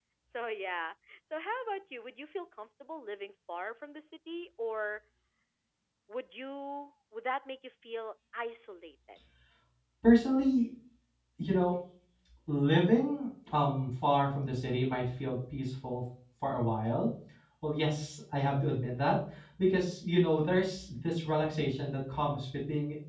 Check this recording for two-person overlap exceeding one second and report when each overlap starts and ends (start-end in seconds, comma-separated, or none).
none